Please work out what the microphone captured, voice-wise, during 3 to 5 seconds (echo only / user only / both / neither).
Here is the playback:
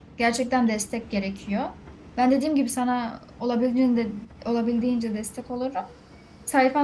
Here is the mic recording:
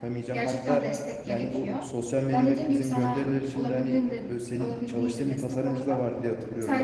both